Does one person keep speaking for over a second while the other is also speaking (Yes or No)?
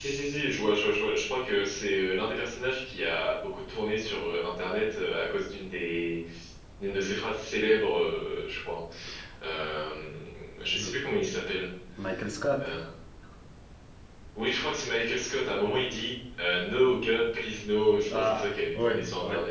Yes